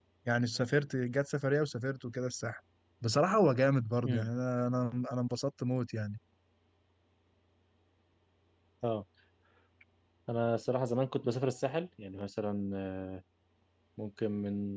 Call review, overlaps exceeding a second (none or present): none